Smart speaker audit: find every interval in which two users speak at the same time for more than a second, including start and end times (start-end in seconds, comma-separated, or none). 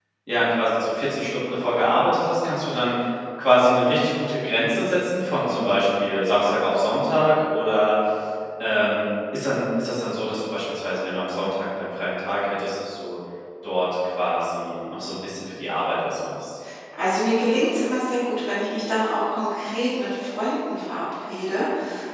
none